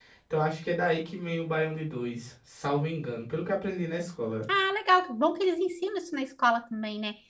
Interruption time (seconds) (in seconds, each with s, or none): none